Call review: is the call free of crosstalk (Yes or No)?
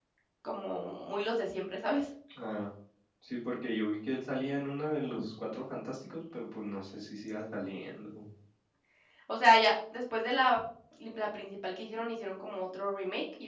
Yes